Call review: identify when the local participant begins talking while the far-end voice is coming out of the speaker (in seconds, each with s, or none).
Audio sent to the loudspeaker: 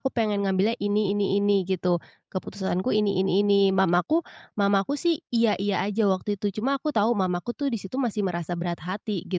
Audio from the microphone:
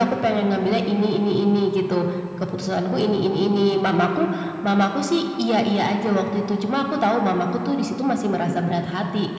none